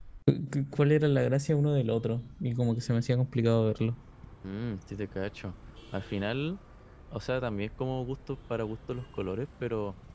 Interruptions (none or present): none